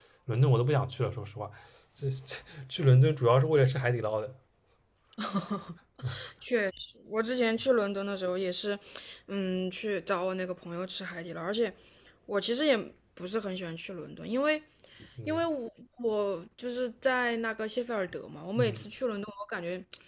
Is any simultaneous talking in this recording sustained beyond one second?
No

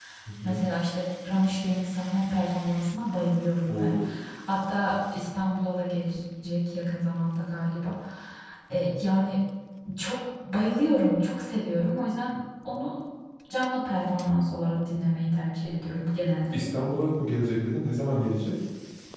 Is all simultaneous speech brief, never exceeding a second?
Yes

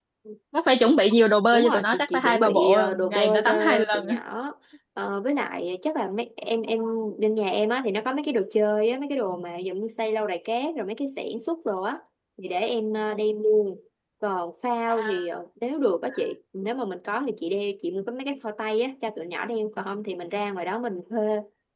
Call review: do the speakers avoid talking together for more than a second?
No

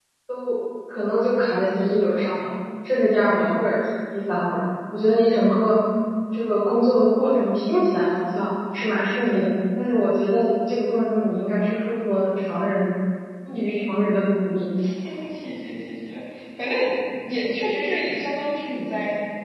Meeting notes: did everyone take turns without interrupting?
Yes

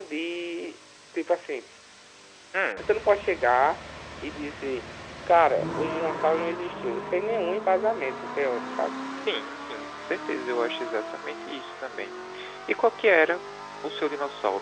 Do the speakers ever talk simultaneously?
No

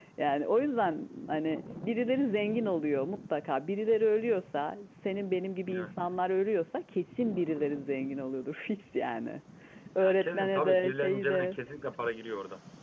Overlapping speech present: Yes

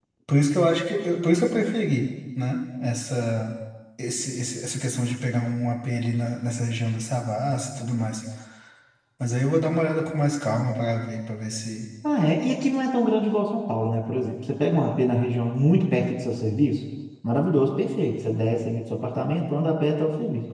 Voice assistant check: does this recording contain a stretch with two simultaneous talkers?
No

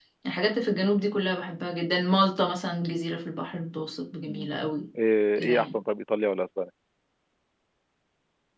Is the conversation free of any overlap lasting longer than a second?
Yes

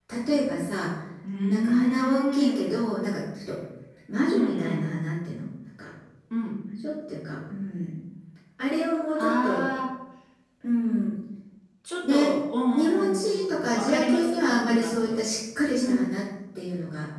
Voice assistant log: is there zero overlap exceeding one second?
No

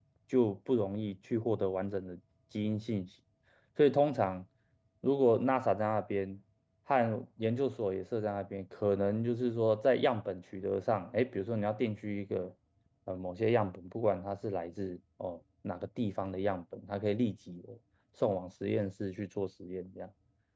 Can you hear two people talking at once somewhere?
No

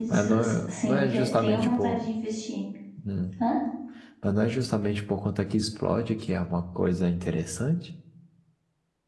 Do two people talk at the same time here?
Yes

